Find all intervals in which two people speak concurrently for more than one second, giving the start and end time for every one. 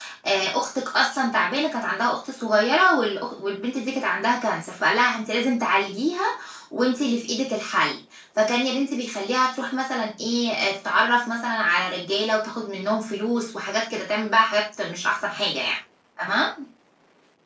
none

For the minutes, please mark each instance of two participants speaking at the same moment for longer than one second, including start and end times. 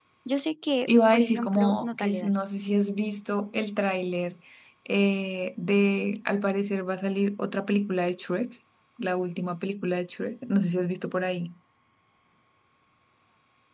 0.9-2.3

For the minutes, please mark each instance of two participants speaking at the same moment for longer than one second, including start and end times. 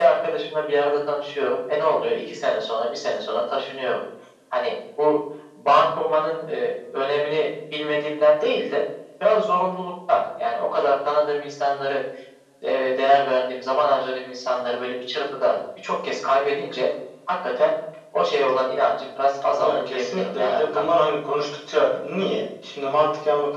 19.6-20.9

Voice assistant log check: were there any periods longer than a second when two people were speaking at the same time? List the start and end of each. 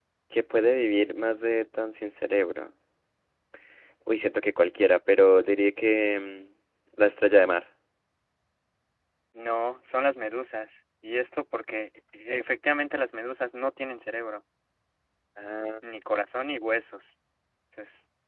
none

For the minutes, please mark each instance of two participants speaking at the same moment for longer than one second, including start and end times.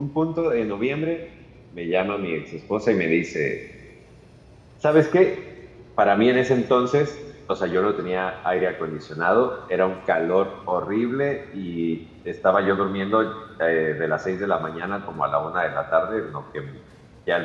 none

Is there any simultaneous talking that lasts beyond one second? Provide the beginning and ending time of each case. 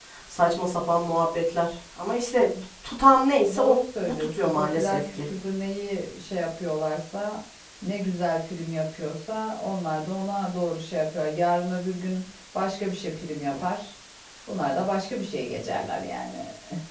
3.5-5.3

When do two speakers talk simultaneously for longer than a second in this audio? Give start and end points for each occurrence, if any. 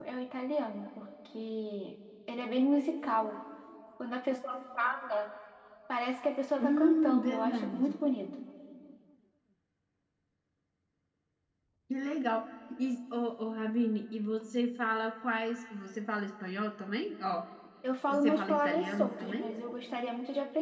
6.6-8.0, 18.1-19.5

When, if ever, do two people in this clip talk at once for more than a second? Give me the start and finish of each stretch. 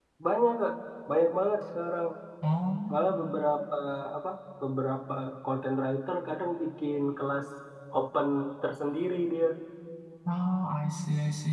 none

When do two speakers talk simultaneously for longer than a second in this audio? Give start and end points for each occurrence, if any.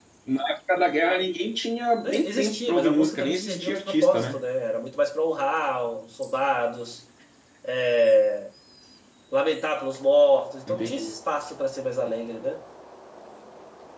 2.0-4.4

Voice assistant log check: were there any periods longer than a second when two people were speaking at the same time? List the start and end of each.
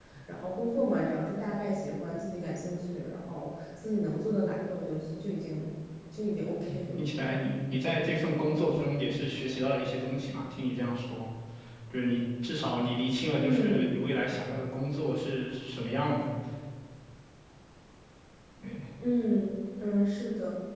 none

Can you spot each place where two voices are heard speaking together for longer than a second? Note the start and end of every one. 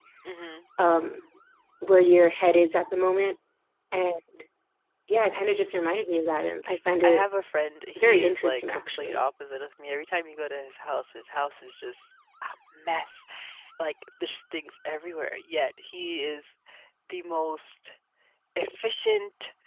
8.0-9.2

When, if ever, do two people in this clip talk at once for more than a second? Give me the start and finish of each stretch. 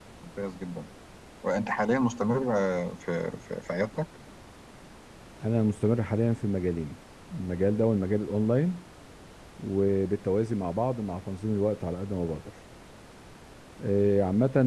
none

